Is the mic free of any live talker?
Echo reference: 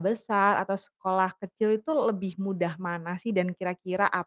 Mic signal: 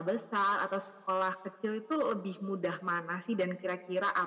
Yes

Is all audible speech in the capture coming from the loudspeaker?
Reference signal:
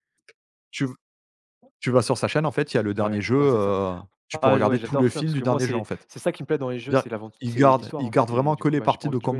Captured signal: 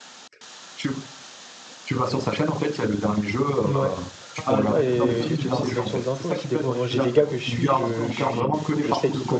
No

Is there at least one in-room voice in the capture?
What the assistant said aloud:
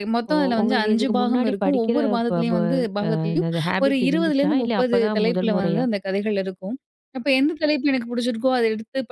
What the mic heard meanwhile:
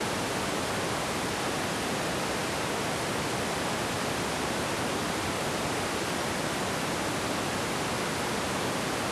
No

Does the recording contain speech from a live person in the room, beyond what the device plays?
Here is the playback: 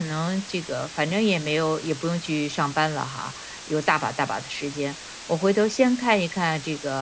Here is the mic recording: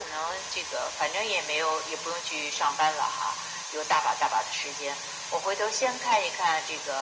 No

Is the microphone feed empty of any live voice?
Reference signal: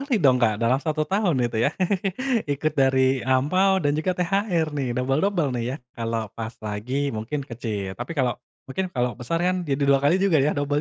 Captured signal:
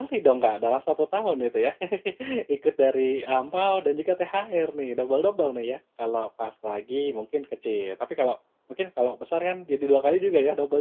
Yes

